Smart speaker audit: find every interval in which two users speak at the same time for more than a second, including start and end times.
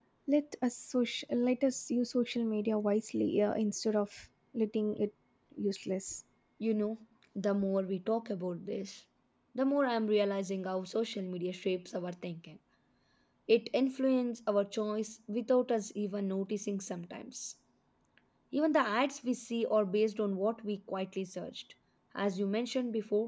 none

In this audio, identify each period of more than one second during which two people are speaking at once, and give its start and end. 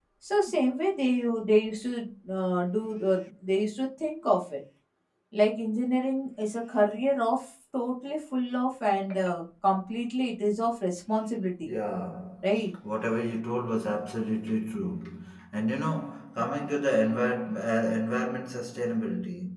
none

